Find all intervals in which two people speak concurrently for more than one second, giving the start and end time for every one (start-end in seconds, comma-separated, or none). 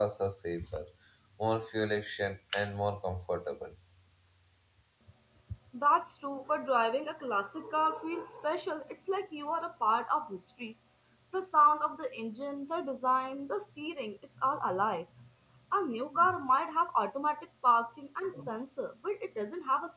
none